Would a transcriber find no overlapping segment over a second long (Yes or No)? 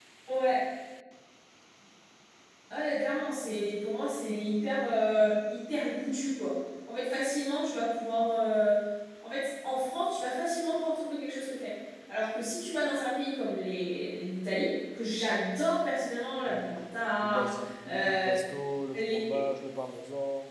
Yes